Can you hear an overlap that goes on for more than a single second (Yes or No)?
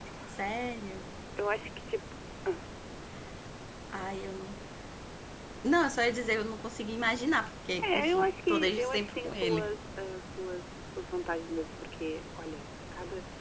Yes